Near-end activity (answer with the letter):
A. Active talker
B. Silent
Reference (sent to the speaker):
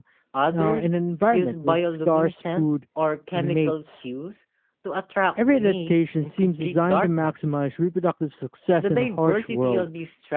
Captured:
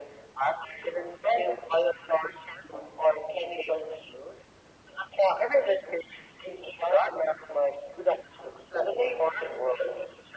B